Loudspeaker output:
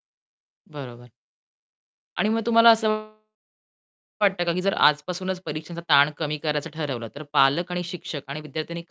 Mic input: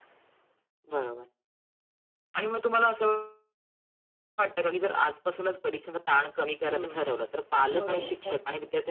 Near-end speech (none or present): present